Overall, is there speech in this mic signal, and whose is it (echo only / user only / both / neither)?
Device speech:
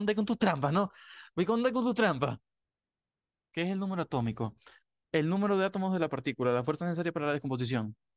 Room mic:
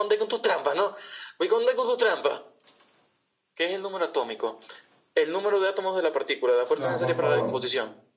both